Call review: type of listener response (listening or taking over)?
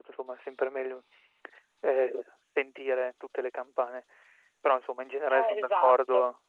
listening